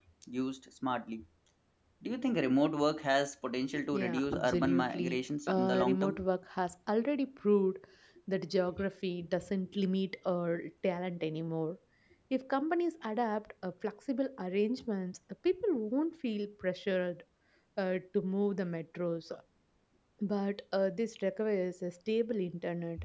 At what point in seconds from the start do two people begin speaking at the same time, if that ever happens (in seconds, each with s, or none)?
3.9 s